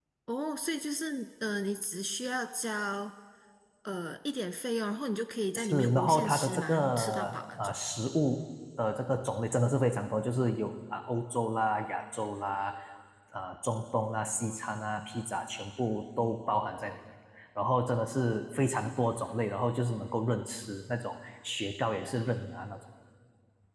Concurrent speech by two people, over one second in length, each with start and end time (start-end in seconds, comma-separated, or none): 5.5-7.8